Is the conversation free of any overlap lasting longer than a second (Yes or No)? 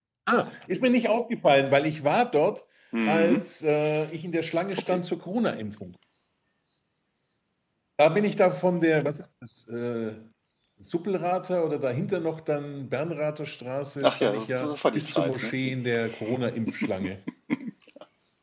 No